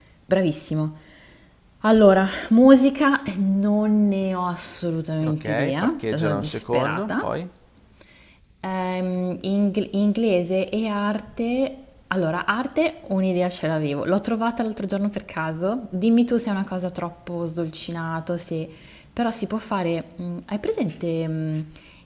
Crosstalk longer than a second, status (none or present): present